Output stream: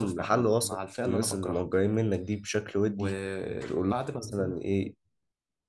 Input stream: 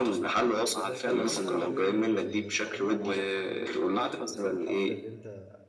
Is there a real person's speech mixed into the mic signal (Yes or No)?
Yes